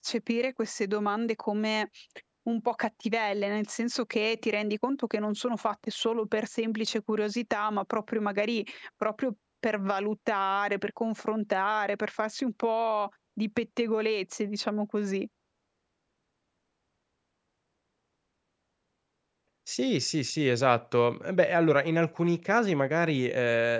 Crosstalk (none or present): none